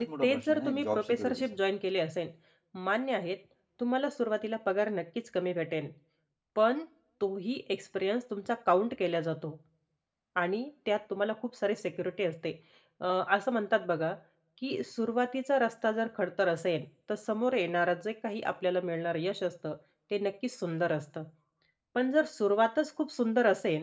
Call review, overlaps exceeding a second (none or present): present